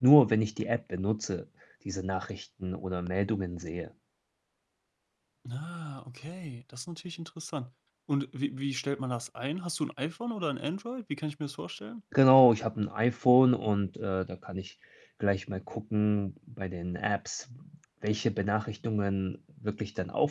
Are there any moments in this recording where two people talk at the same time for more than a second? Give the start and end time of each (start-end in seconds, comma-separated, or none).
none